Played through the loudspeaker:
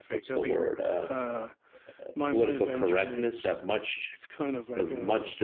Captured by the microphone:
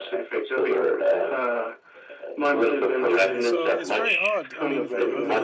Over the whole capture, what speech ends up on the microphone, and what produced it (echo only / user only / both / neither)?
both